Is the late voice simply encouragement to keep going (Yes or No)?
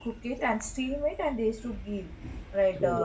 Yes